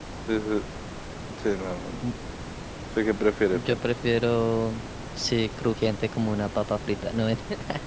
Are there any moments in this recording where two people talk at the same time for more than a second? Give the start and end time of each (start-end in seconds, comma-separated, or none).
none